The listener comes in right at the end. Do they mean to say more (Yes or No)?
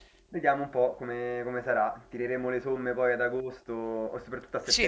Yes